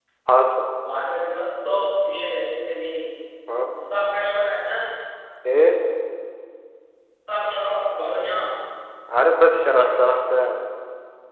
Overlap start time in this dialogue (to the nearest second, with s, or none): none